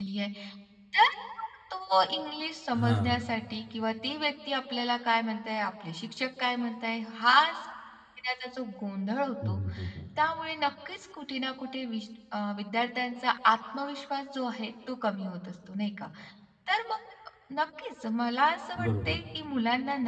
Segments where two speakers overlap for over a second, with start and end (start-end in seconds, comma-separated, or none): none